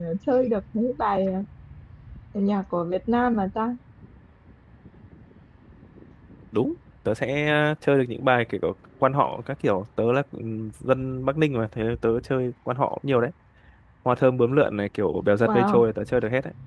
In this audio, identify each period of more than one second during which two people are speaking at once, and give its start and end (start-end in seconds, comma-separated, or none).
none